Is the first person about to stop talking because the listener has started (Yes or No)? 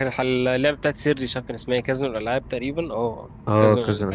Yes